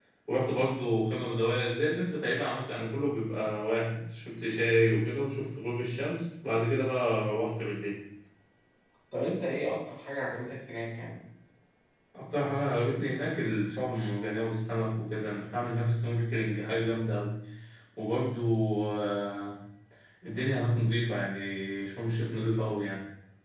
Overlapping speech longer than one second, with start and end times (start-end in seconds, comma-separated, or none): none